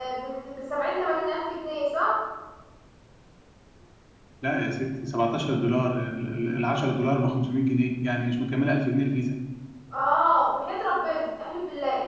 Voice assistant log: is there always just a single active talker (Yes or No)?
Yes